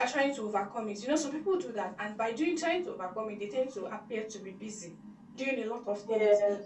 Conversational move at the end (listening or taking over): listening